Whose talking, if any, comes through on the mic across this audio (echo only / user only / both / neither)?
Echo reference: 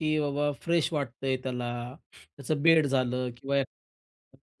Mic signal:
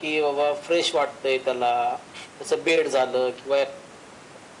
echo only